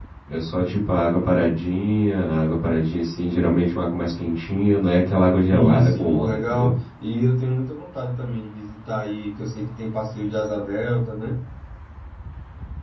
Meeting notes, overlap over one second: present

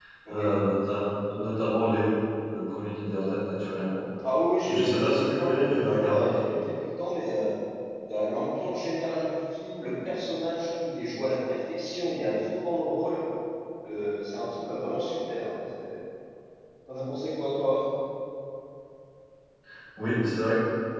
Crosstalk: present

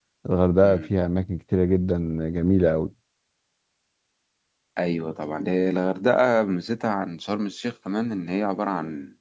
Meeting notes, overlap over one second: none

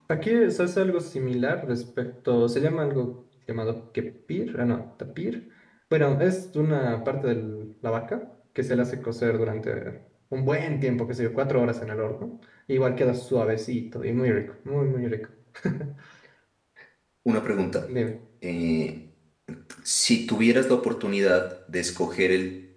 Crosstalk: none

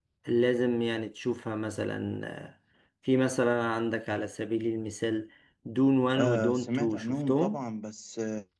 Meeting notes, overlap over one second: present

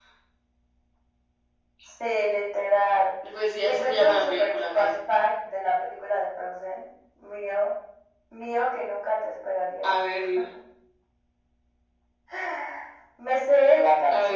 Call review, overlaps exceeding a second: present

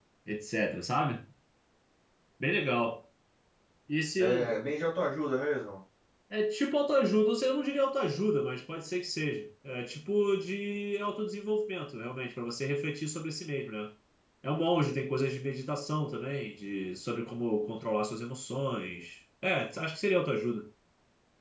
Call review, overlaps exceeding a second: none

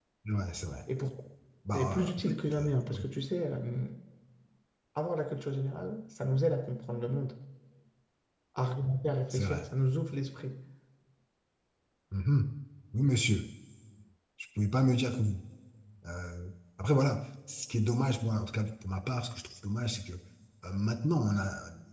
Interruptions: present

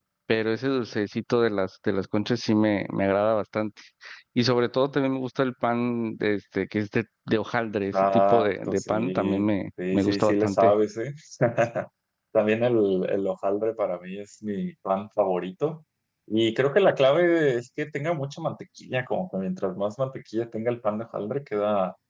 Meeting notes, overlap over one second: present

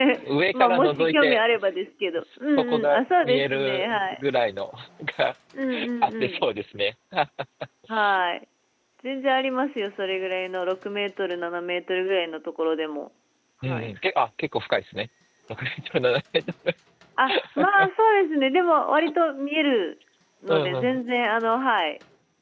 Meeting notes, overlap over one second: present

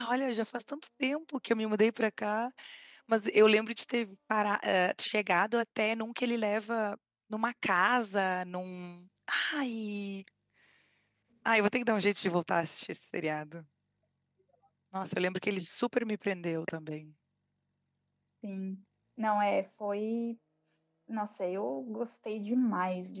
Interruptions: none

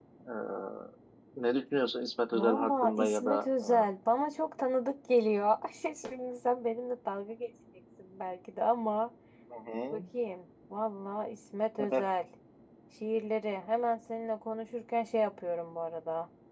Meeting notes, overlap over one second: present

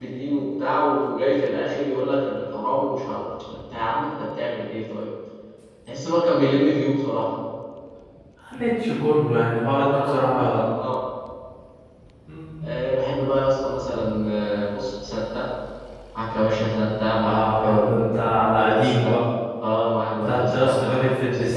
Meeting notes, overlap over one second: present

